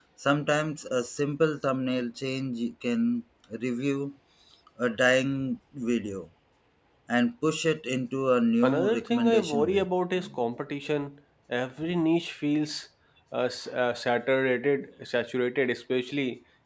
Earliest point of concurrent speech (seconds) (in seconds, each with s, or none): 8.6 s